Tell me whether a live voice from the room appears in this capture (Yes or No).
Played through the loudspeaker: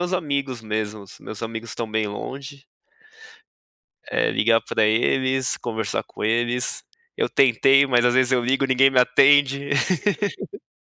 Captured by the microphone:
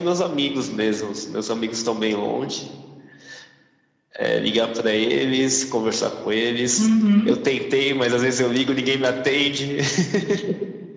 Yes